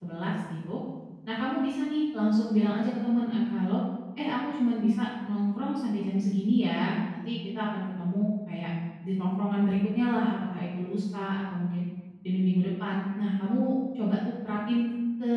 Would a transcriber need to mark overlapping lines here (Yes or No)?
No